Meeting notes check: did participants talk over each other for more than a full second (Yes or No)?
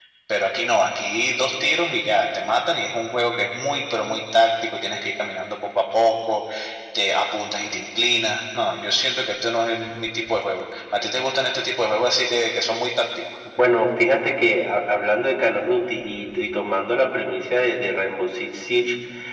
No